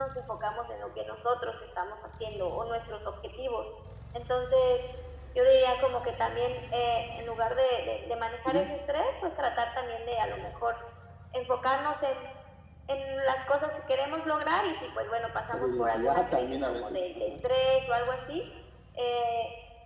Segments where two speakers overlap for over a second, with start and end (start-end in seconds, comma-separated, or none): 15.5-17.3